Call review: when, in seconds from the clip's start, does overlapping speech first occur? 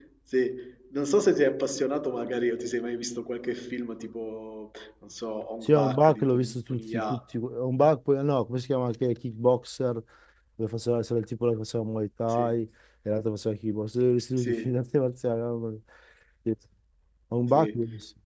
5.6 s

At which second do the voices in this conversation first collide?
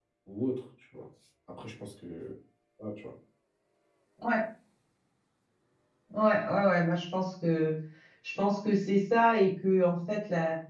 none

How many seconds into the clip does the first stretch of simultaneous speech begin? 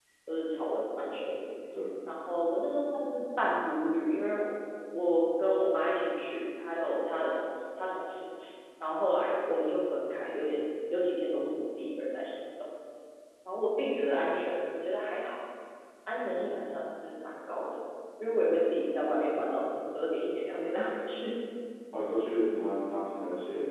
none

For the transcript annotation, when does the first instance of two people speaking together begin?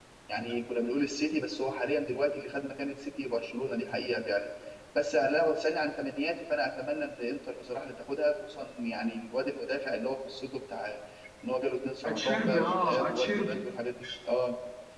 12.0 s

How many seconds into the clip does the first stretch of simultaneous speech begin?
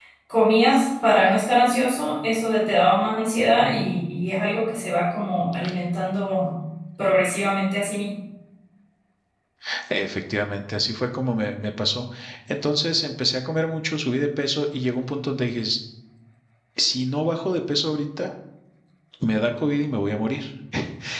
none

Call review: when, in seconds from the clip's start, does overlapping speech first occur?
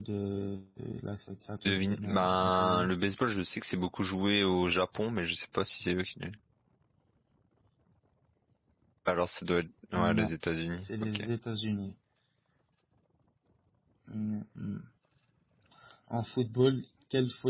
1.6 s

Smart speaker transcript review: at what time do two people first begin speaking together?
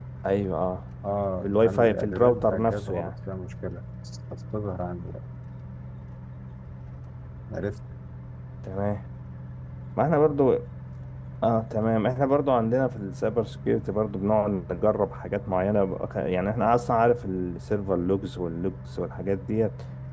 1.4 s

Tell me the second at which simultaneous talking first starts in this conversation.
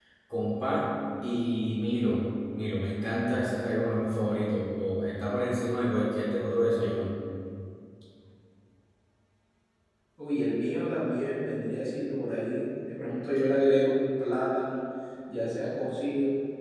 none

